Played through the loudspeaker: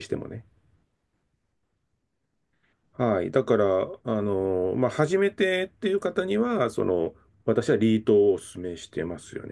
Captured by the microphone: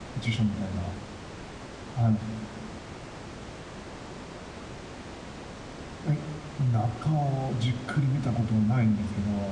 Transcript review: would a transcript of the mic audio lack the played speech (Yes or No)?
Yes